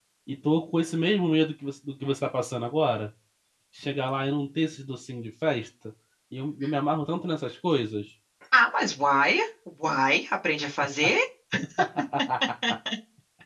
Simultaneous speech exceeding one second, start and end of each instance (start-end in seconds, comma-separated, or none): none